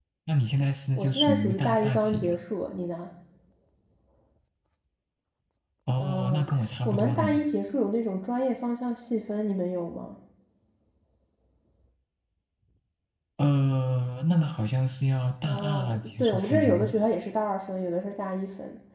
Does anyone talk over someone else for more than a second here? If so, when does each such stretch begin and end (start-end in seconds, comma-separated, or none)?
1.0-2.4, 6.0-7.4, 15.4-16.9